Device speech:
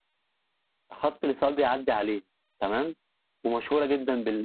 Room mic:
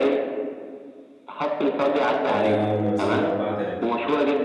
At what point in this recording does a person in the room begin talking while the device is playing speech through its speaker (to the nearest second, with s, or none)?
2 s